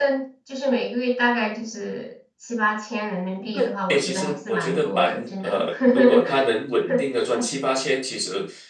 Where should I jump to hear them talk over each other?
4 s

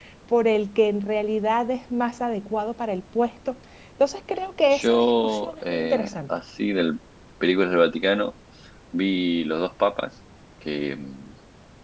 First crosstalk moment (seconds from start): 5 s

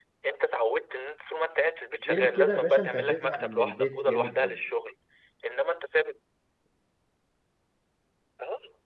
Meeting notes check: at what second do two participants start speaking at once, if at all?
2 s

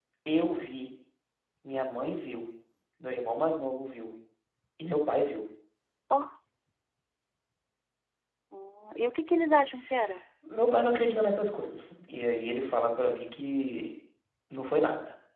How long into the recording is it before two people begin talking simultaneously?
none

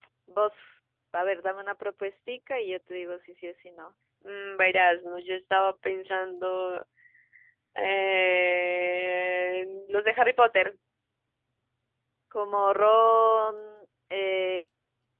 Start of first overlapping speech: none

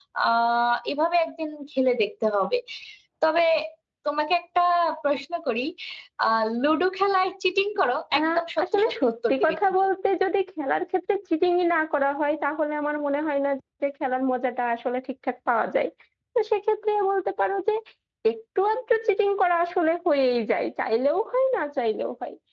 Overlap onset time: 8 s

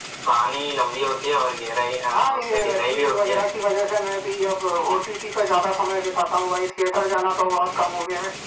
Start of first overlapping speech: 2 s

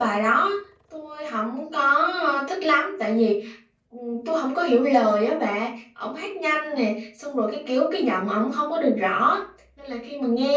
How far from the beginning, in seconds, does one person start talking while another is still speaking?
none

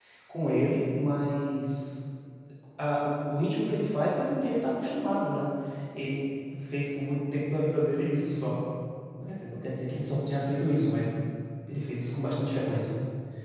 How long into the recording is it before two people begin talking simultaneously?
none

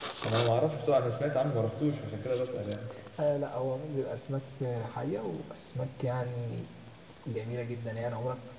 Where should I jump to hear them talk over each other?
none

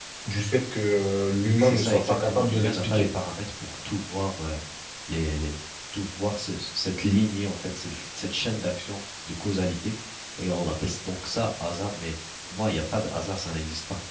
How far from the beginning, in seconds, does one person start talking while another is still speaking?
2 s

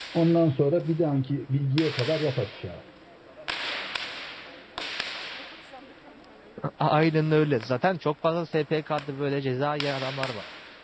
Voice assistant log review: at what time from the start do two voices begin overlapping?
none

